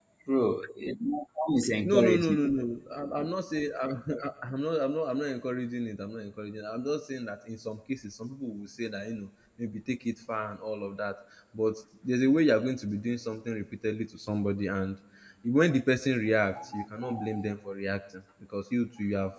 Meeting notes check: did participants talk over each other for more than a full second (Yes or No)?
No